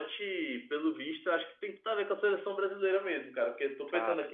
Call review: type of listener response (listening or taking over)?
listening